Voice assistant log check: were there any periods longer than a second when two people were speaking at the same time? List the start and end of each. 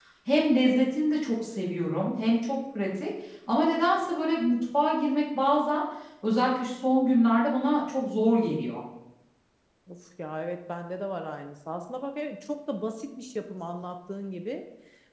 none

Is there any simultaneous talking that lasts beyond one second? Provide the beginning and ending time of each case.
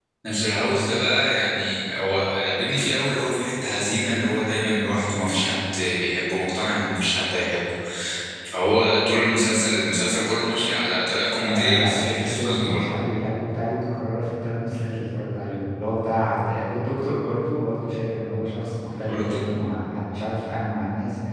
11.4-12.8

